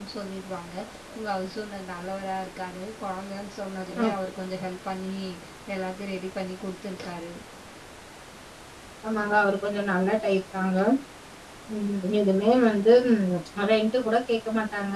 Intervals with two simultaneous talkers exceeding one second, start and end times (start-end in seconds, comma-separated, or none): none